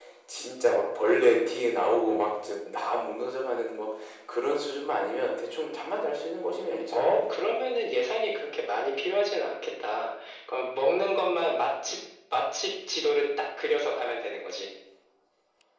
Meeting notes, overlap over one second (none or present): none